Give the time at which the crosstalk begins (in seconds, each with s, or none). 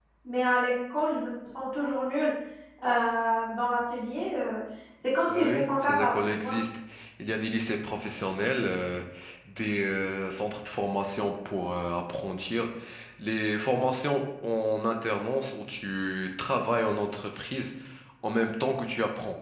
5.3 s